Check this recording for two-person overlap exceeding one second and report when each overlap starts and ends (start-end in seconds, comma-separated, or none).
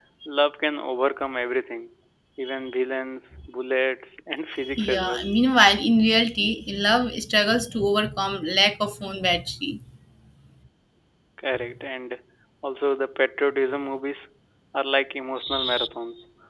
none